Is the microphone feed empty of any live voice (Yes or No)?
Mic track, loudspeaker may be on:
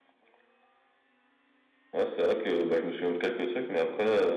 Yes